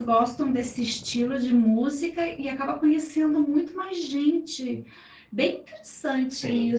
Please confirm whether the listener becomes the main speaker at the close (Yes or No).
No